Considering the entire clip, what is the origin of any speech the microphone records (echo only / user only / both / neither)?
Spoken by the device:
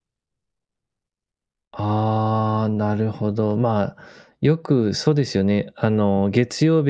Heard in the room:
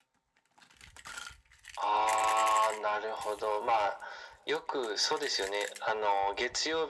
echo only